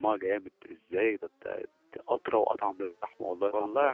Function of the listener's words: taking over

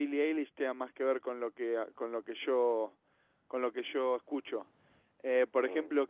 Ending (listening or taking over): listening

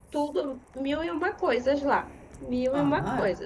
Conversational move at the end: taking over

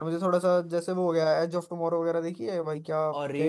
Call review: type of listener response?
taking over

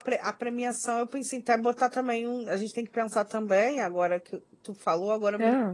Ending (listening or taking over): listening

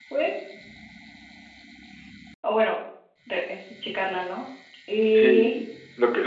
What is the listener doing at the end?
taking over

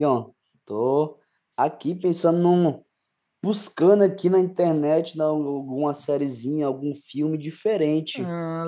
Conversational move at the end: listening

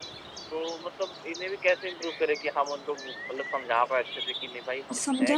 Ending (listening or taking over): taking over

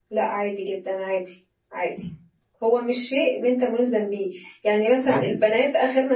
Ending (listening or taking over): listening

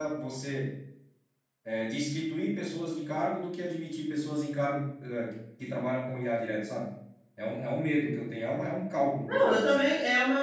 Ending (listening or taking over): taking over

